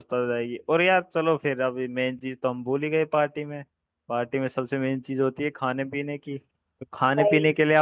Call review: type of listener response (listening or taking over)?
listening